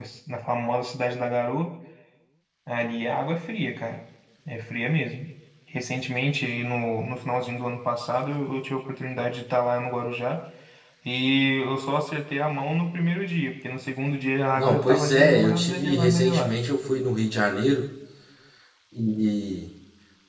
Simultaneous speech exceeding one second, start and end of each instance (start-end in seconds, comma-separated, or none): 14.6-16.6